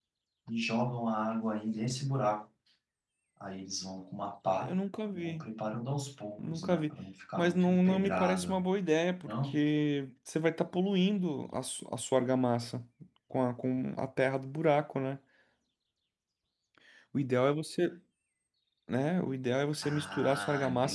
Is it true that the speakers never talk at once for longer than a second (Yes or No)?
No